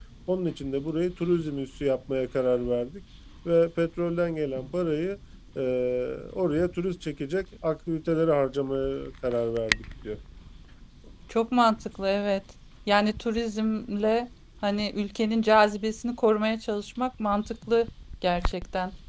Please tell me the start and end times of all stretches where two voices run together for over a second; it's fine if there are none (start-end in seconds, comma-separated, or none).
none